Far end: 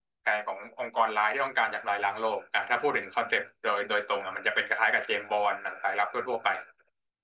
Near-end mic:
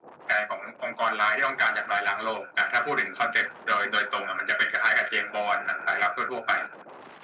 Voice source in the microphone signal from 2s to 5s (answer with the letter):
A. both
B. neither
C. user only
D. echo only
D